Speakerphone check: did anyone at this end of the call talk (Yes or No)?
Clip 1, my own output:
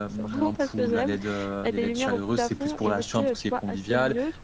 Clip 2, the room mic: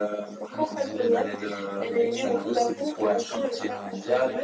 Yes